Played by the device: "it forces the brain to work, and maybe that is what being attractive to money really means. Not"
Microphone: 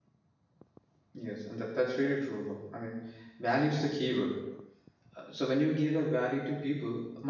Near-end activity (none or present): present